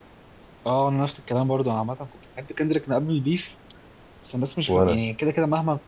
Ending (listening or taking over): listening